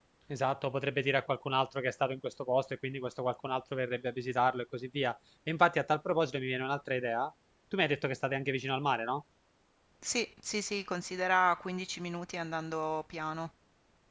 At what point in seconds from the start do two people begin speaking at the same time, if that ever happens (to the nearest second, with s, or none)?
none